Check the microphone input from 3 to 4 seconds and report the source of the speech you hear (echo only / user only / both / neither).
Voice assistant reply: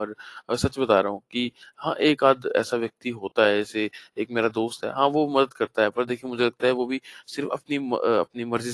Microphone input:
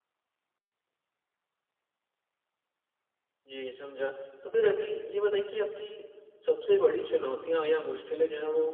user only